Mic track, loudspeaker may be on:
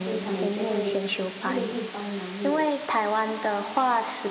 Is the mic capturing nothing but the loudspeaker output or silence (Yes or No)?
No